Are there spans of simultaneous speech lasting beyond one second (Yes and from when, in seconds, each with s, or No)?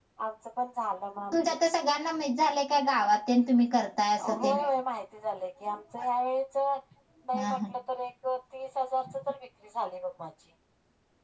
No